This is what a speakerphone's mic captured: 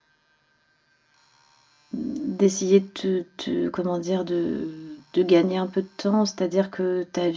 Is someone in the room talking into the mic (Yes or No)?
Yes